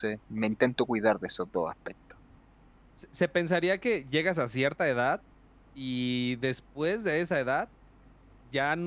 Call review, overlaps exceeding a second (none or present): none